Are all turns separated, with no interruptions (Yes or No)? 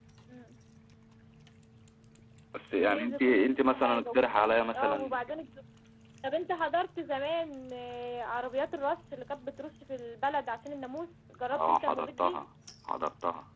No